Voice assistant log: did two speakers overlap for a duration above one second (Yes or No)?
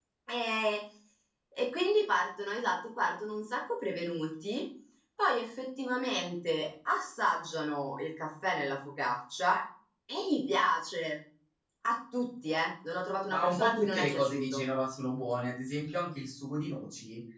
Yes